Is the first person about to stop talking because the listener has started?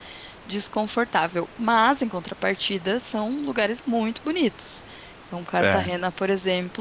No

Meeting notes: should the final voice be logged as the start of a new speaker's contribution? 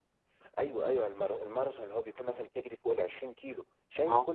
No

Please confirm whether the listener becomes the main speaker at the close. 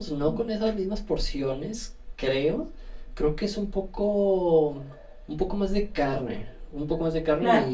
Yes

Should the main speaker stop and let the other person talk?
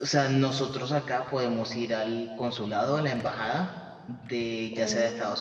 No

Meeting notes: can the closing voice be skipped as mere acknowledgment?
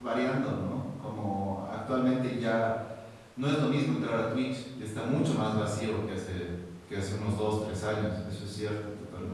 No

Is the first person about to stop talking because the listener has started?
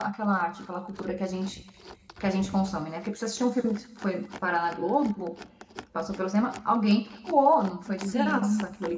No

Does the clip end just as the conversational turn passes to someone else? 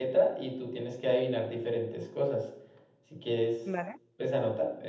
No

